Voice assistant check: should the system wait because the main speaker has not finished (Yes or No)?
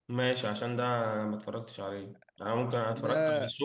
Yes